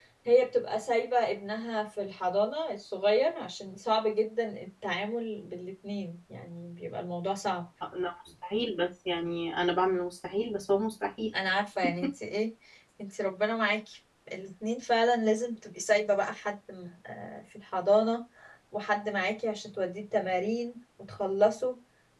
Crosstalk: none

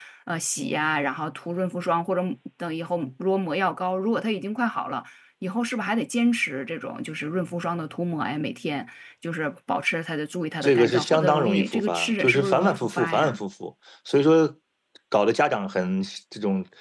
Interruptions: present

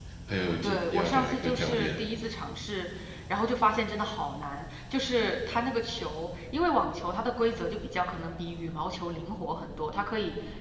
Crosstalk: present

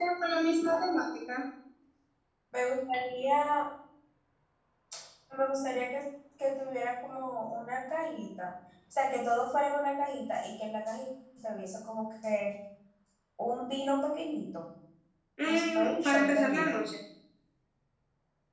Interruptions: present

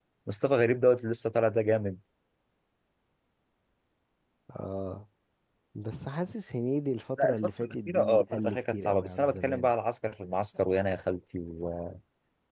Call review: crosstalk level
present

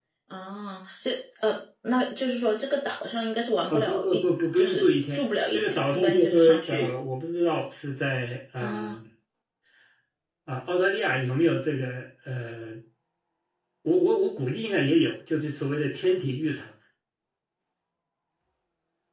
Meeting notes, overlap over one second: present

